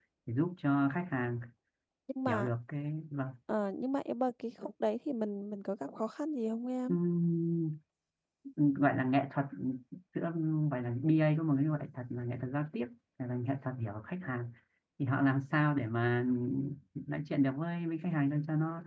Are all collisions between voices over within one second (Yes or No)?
Yes